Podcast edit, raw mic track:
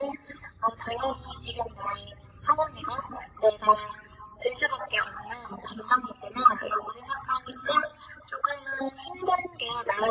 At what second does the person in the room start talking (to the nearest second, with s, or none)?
none